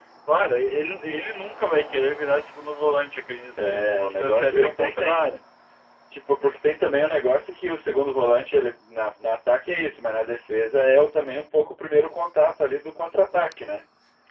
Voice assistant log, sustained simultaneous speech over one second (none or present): present